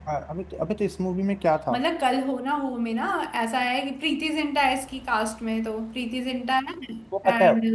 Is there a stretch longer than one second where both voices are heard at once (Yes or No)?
No